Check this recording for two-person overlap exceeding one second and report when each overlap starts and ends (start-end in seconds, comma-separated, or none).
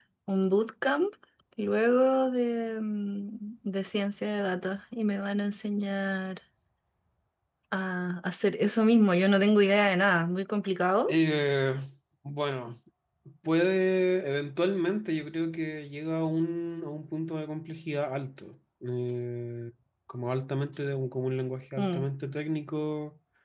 none